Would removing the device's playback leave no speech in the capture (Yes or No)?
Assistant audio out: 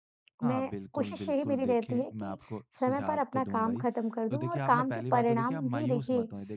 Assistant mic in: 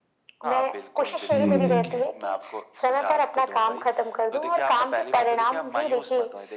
No